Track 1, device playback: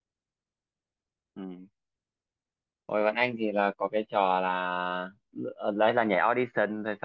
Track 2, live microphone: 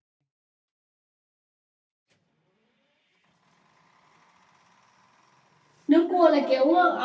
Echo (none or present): none